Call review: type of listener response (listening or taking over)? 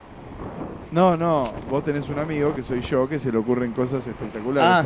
taking over